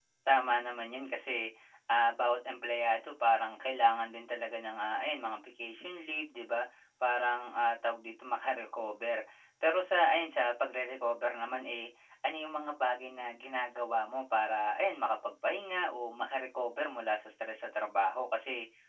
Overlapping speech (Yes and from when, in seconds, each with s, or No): No